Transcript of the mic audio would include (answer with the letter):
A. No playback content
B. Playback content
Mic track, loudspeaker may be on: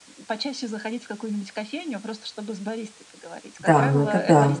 B